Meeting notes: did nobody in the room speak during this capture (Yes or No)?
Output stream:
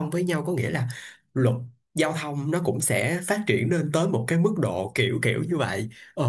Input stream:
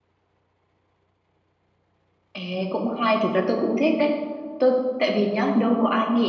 No